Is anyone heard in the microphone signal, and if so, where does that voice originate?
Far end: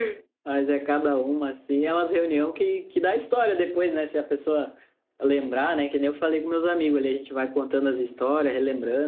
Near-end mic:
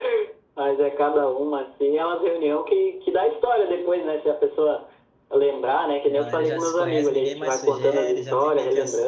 both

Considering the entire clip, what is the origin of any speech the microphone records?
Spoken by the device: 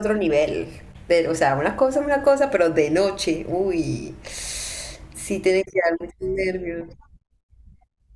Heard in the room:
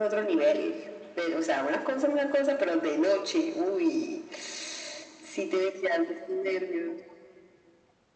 echo only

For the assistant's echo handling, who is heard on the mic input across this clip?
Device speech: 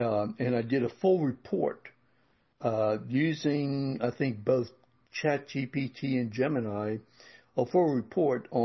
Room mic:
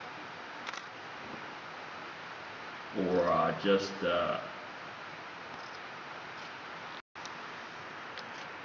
user only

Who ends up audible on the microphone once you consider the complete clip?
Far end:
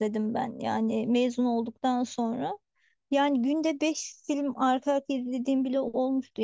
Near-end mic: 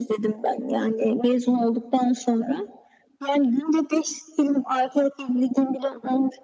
echo only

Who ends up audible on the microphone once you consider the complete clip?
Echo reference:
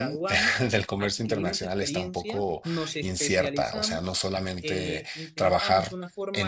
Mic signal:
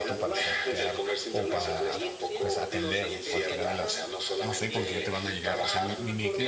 both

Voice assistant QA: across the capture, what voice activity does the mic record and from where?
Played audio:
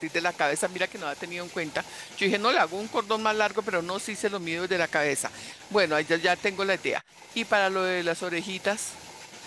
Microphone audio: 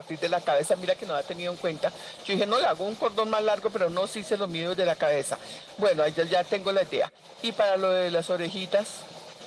echo only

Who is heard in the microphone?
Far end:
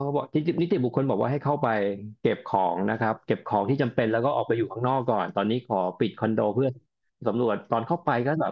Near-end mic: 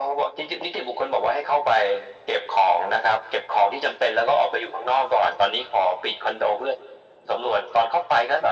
echo only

